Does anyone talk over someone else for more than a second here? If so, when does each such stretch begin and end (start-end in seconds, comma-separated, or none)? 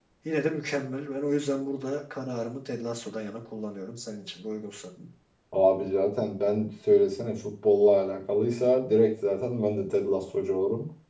none